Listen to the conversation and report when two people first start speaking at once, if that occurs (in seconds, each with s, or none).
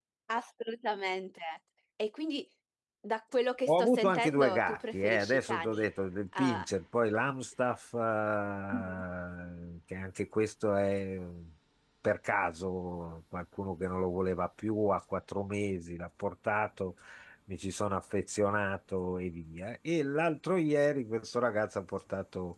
3.7 s